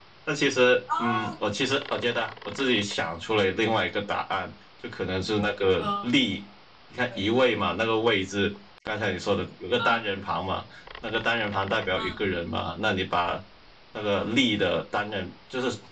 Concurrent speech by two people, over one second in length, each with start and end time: none

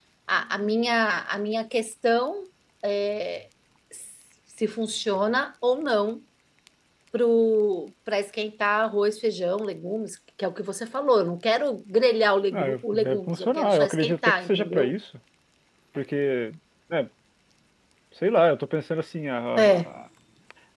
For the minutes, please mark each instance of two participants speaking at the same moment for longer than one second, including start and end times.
12.5-14.9

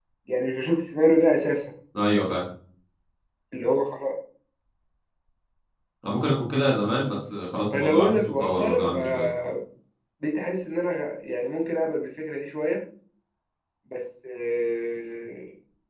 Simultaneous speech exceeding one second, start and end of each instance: 7.7-9.3

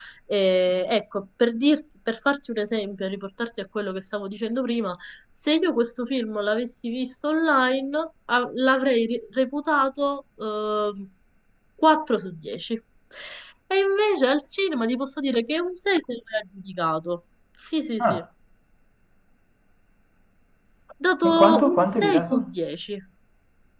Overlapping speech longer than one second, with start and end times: 21.3-22.5

